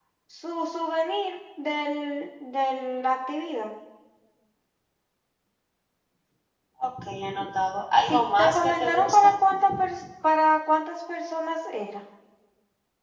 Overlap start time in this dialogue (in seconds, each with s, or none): 8.1 s